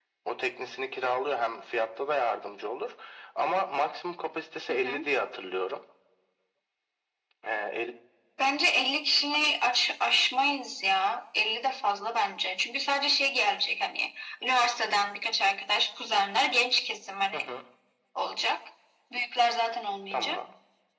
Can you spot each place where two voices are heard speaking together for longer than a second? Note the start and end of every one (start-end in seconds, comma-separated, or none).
none